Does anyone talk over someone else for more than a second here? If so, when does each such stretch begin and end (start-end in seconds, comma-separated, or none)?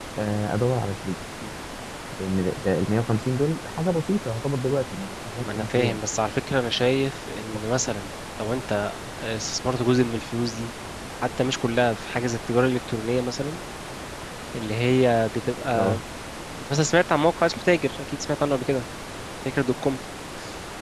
none